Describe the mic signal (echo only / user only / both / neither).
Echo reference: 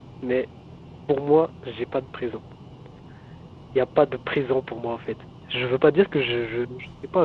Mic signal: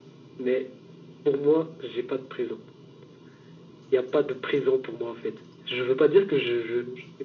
echo only